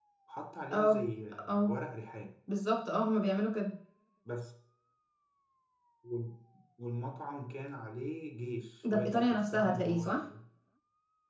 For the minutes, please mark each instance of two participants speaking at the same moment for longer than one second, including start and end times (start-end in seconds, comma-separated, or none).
8.8-10.2